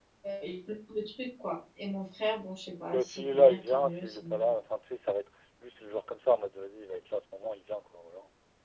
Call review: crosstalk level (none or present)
present